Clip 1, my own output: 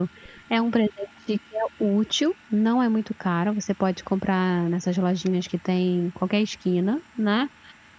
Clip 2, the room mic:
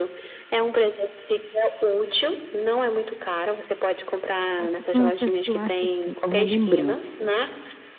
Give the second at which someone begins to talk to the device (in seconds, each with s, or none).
4.6 s